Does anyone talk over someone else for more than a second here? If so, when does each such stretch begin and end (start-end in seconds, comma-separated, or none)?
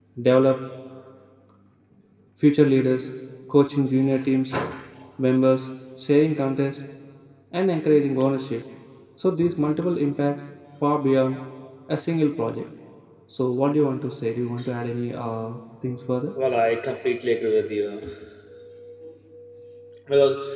none